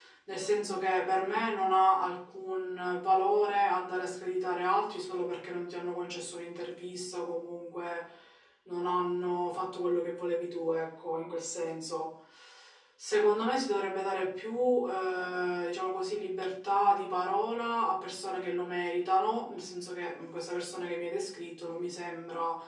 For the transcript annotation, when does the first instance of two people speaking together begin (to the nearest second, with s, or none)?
none